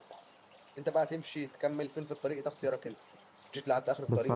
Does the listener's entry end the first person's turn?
Yes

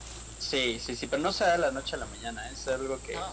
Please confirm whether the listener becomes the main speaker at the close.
No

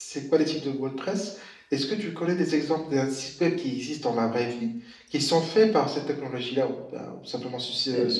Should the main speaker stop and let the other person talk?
Yes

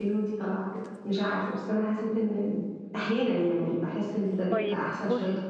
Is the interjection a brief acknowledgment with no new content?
No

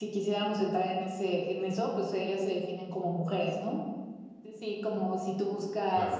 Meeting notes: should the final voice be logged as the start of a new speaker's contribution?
No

